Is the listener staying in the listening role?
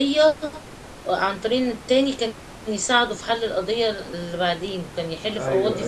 No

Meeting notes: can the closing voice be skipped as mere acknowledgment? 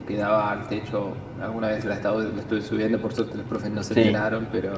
Yes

